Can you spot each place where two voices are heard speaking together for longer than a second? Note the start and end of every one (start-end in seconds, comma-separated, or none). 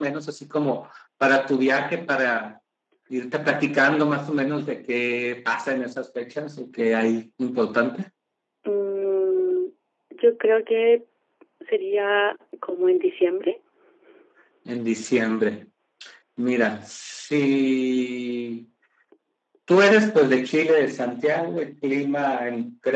none